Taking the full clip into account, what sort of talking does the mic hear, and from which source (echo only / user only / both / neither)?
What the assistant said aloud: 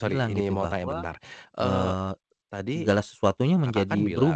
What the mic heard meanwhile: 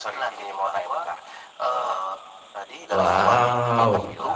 both